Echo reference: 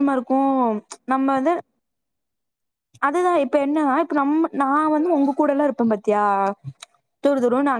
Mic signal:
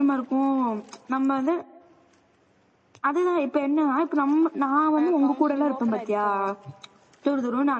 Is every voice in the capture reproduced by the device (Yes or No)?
No